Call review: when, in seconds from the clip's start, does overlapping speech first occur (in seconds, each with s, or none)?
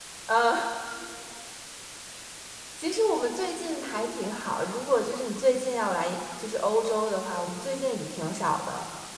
none